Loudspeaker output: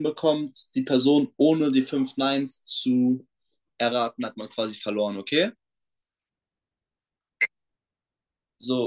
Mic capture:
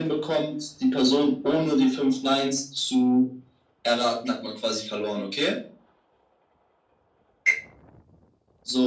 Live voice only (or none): none